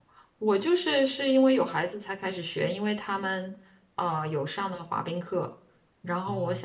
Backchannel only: Yes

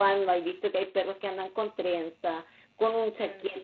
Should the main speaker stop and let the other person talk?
No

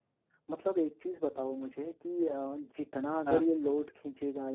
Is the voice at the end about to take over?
No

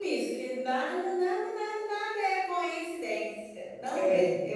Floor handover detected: No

